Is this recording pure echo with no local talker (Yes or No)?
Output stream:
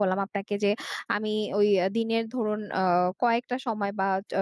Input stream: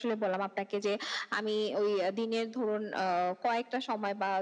Yes